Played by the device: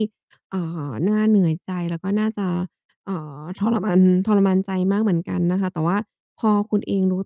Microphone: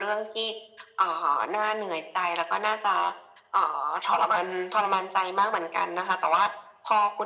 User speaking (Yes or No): No